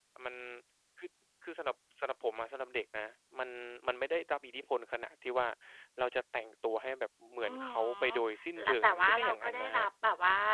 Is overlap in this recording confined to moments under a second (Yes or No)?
No